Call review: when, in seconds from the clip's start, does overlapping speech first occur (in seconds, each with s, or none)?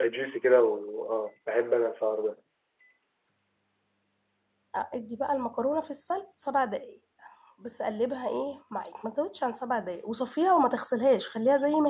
none